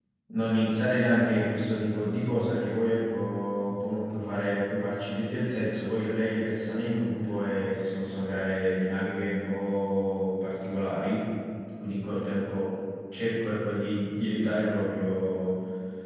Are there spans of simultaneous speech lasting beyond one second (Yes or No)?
No